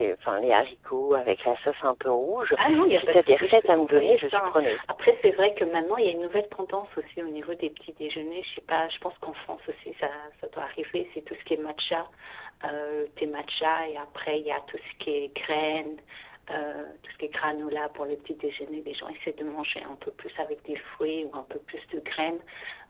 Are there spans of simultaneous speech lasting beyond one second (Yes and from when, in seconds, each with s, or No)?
Yes, from 2.6 s